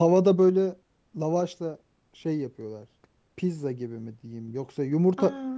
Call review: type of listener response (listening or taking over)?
listening